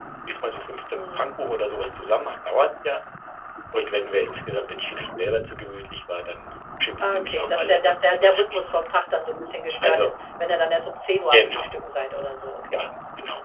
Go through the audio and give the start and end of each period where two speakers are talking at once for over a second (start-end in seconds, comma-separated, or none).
7.0-8.6